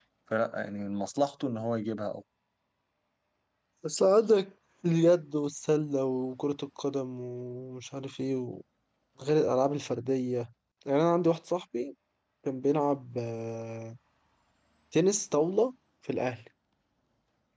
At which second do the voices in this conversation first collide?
none

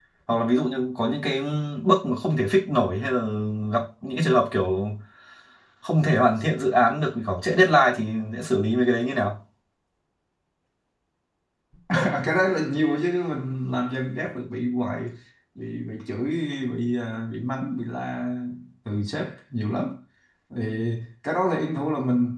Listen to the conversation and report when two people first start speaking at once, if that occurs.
none

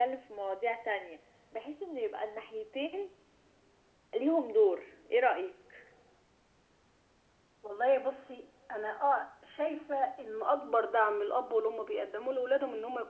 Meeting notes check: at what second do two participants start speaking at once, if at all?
none

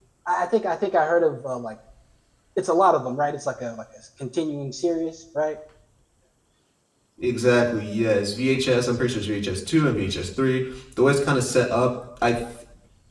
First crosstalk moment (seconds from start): none

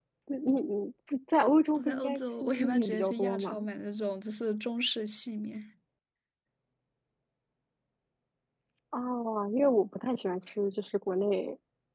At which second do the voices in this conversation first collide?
1.8 s

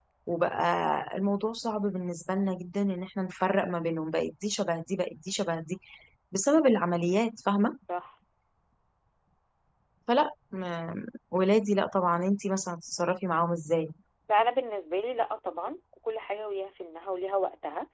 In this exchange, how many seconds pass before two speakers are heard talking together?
none

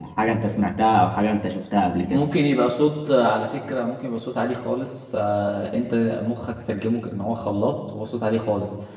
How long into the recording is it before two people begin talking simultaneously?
none

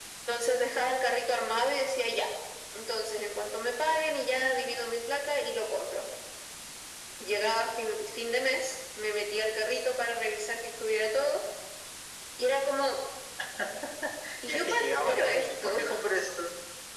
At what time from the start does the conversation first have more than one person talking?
14.5 s

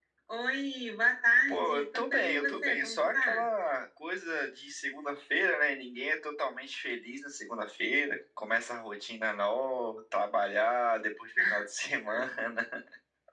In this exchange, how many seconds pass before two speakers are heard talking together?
1.5 s

